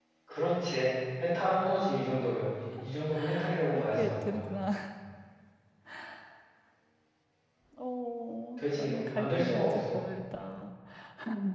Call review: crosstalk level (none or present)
present